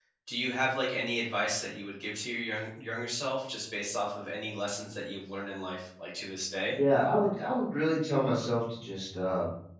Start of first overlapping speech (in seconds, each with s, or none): none